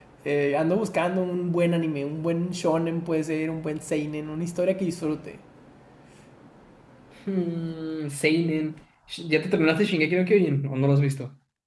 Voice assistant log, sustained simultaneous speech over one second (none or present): none